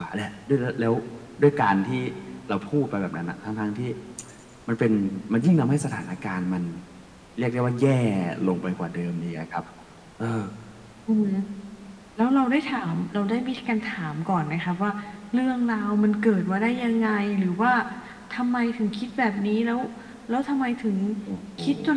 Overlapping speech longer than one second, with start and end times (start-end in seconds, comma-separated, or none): none